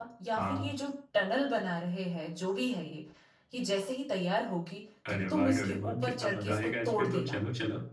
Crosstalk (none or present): present